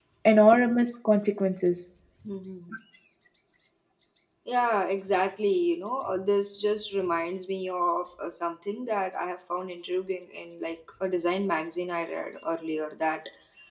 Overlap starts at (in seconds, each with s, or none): none